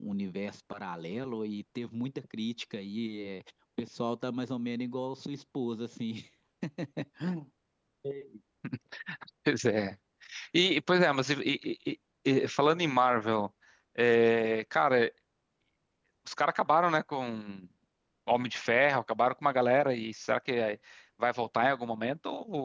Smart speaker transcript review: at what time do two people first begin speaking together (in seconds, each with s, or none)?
none